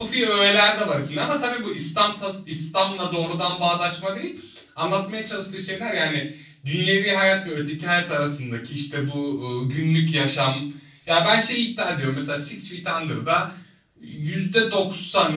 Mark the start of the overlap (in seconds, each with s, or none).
none